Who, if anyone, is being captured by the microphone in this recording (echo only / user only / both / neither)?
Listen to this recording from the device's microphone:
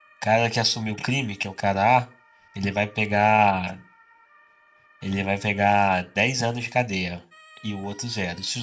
user only